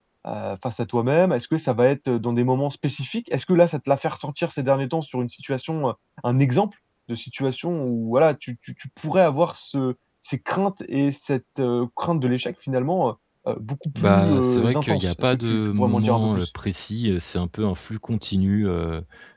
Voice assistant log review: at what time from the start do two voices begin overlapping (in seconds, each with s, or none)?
13.9 s